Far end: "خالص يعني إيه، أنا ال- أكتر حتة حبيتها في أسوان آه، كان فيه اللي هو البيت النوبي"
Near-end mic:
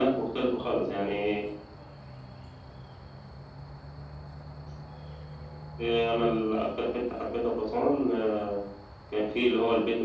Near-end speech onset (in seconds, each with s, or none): none